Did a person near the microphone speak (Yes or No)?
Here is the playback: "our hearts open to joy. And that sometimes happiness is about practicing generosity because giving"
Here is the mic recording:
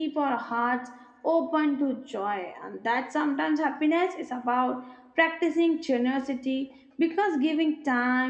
No